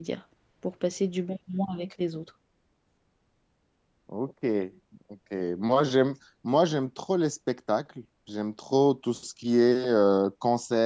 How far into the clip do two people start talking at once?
none

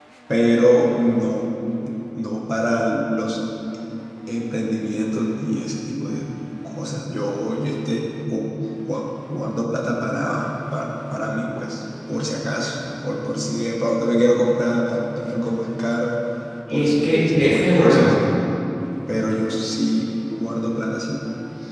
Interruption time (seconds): 16.7 s

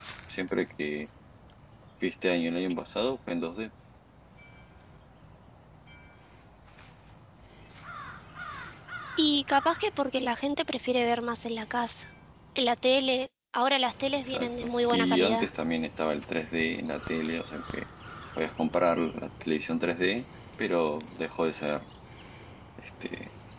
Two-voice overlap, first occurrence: 14.2 s

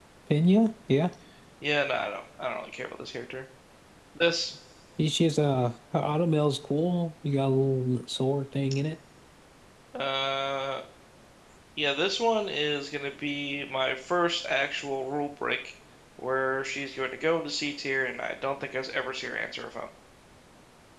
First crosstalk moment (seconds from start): none

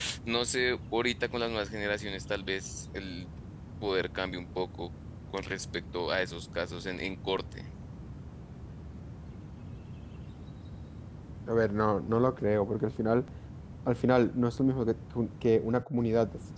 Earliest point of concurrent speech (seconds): none

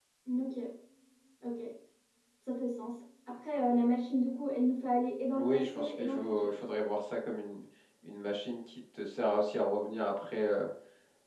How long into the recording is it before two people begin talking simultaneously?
5.3 s

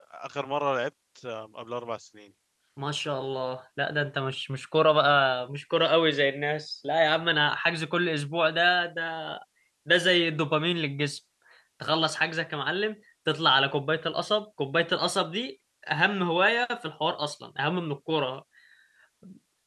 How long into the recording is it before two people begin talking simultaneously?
none

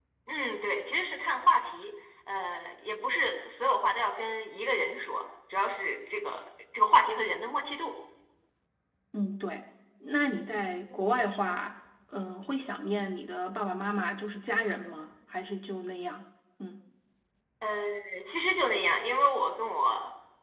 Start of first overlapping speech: none

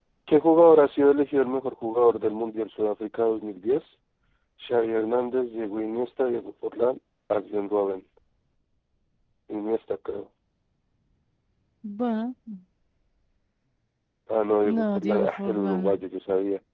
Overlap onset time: 14.7 s

